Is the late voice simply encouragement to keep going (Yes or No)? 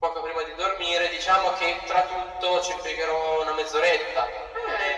No